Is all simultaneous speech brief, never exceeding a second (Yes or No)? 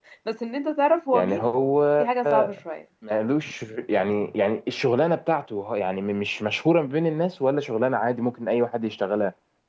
Yes